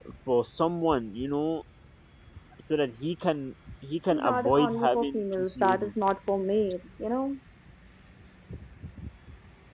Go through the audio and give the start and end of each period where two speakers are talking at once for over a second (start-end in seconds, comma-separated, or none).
4.1-5.9